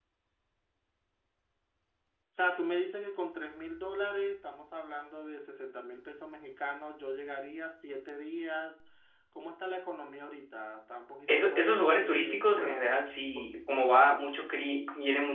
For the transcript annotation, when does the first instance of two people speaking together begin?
11.3 s

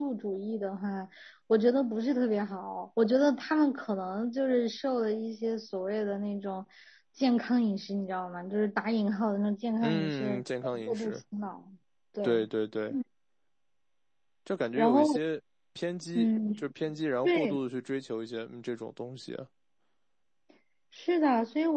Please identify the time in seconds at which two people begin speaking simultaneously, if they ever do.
9.8 s

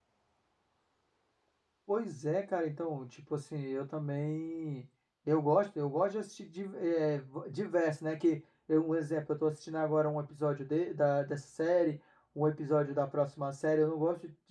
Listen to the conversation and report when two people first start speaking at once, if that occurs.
none

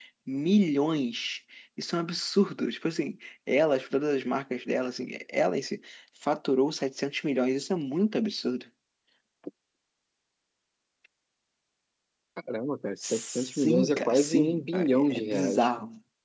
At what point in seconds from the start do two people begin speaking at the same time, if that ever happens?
13.0 s

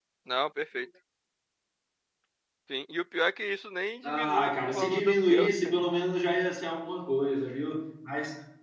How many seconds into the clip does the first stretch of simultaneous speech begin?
4.0 s

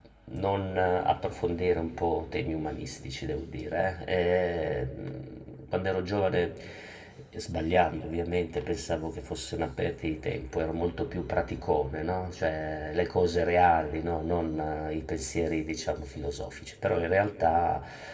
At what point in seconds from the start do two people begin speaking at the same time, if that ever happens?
none

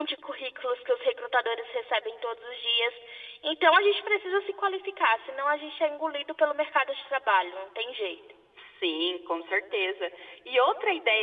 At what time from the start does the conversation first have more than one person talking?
none

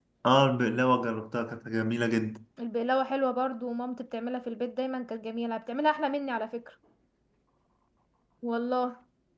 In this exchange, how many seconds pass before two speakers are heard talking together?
none

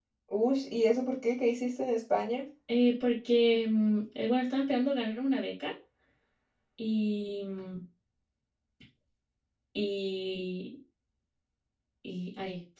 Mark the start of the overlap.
none

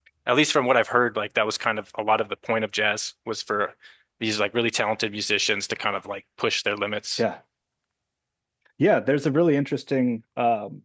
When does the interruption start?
none

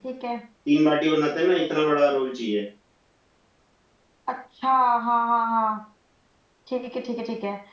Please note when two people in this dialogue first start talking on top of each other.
none

